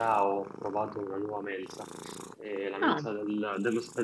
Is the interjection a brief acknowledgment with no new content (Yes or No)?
Yes